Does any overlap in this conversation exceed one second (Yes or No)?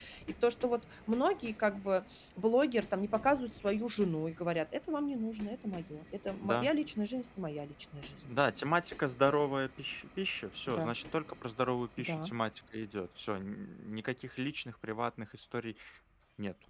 No